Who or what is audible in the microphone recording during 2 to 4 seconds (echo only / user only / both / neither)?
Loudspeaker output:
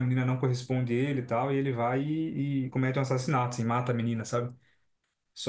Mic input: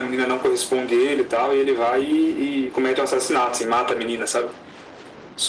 echo only